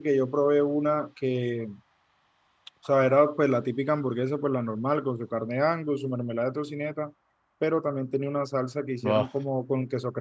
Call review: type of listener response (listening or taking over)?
listening